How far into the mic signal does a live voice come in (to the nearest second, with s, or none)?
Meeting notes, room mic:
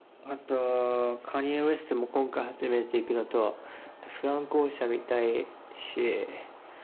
none